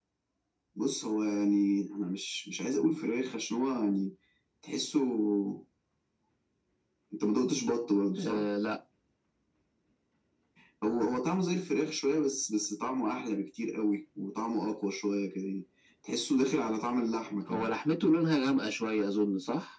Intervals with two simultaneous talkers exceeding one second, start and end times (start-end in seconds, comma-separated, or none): none